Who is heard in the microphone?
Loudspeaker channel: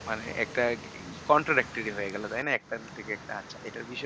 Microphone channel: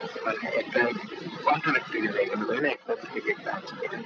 echo only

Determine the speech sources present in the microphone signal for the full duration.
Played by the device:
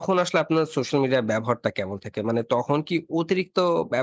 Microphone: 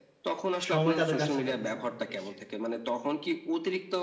both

